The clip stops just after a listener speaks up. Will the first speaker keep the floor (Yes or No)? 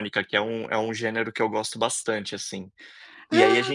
Yes